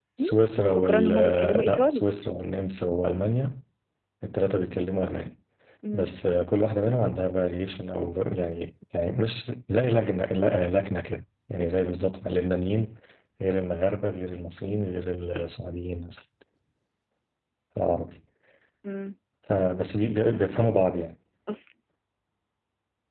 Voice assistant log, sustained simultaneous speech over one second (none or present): present